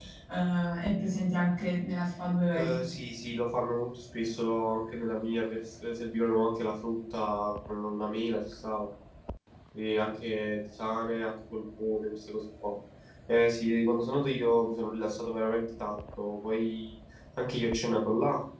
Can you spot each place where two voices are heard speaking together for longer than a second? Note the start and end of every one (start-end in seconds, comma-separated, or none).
none